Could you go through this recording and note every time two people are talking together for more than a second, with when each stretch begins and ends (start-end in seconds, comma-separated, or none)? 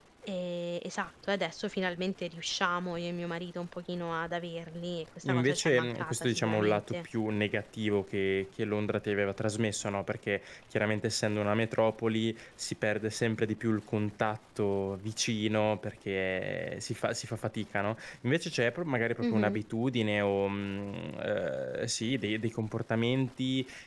5.2-7.0